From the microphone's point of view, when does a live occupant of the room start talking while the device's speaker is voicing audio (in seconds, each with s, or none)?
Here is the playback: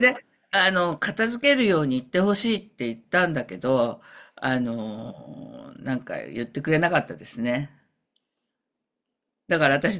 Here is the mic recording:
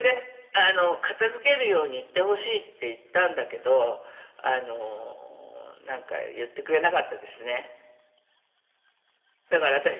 none